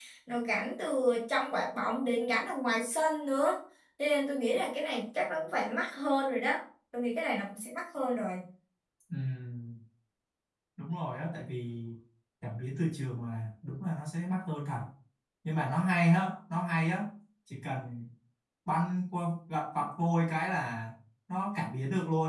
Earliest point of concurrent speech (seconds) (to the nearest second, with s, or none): none